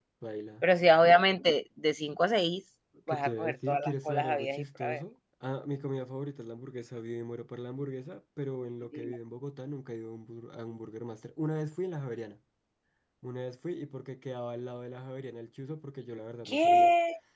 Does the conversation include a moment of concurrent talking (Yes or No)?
Yes